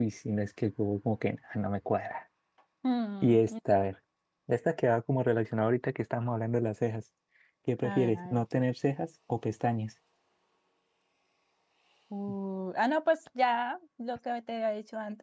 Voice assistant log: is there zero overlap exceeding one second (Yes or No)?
Yes